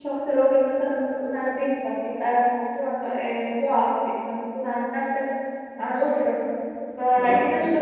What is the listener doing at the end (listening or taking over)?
listening